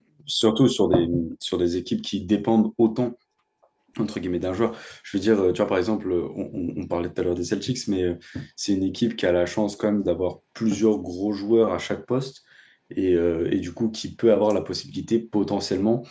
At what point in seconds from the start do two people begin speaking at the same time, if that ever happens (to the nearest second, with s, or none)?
none